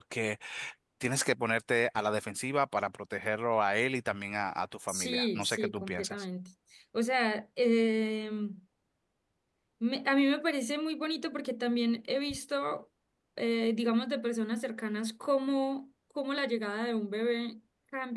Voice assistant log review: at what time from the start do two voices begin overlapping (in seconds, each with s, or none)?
4.9 s